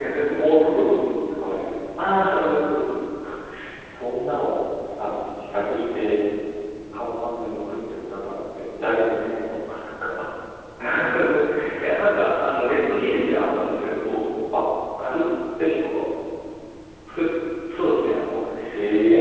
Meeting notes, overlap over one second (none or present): none